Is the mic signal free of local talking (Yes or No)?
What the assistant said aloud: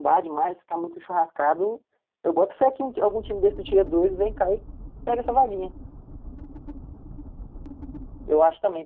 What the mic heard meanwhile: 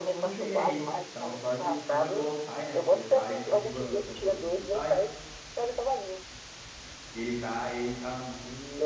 No